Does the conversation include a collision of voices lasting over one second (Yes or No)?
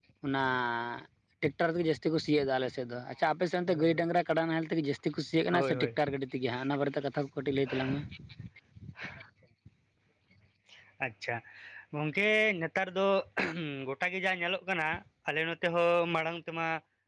No